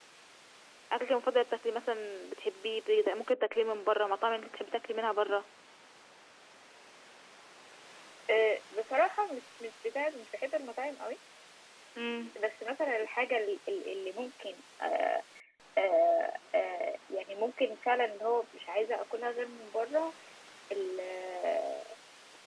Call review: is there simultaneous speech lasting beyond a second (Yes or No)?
No